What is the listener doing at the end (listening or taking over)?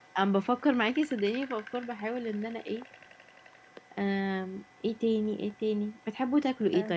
listening